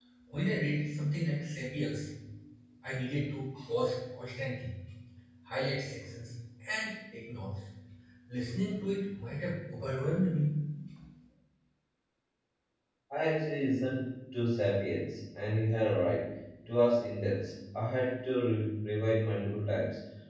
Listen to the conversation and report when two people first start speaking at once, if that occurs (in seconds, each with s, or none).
none